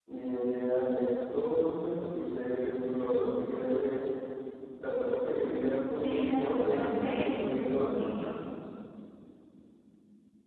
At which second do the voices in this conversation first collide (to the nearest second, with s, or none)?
6 s